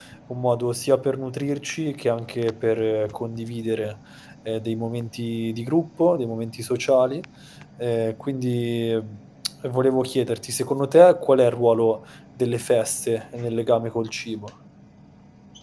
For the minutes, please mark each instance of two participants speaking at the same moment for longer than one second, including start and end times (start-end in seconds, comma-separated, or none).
none